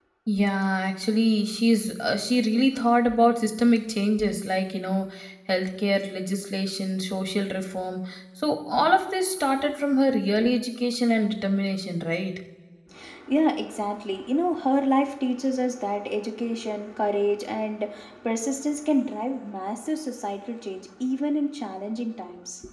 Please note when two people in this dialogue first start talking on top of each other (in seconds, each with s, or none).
none